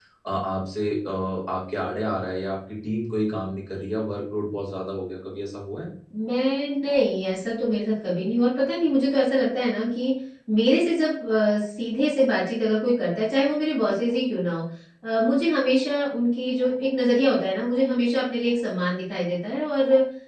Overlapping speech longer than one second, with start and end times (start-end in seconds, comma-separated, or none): none